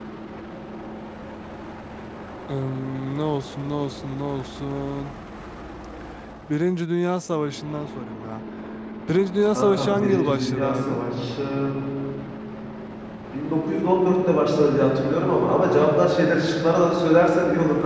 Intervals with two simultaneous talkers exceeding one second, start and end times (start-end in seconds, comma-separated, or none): 9.6-11.0